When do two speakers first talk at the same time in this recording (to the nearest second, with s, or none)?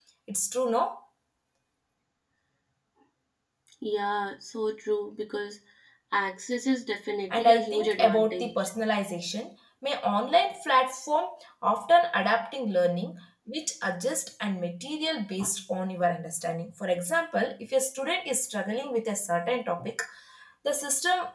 7 s